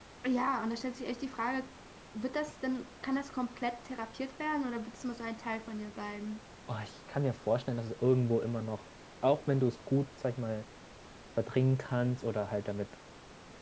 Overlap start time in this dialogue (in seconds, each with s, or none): none